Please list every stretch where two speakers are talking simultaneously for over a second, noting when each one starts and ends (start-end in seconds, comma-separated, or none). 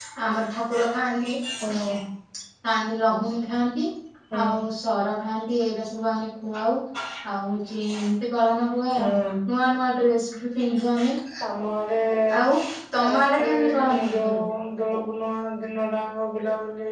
13.0-14.5